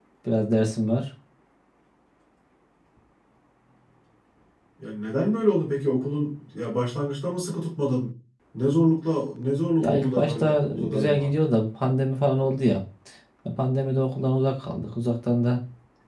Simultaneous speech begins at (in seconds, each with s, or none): 9.8 s